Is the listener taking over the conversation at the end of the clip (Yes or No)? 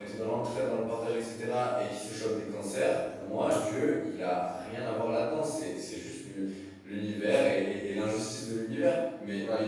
No